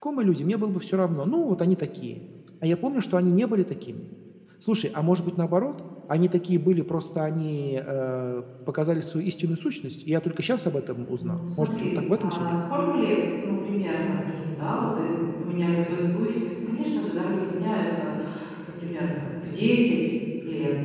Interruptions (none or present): present